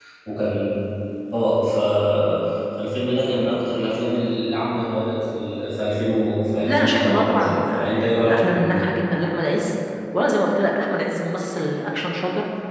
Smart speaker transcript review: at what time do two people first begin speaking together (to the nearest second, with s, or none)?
7 s